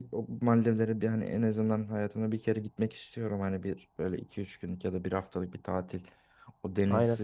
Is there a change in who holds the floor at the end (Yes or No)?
No